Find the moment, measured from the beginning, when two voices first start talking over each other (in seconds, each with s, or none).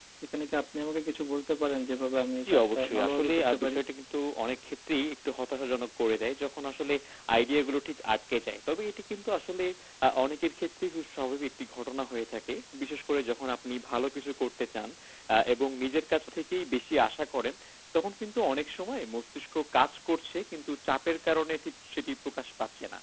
2.4 s